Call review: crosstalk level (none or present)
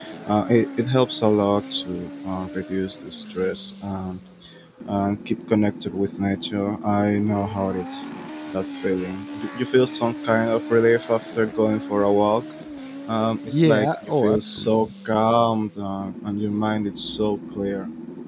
present